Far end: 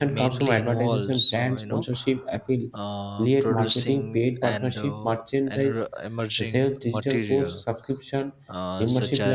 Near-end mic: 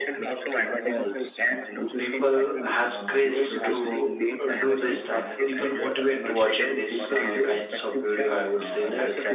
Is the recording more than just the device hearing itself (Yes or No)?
Yes